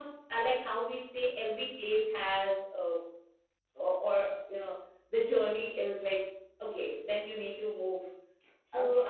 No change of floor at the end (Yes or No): No